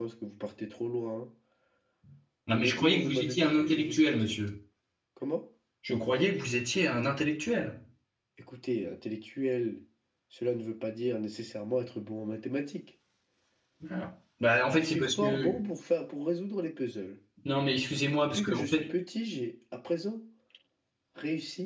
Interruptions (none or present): present